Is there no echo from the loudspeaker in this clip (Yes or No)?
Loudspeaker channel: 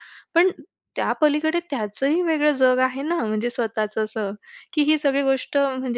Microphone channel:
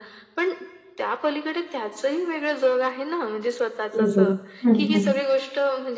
No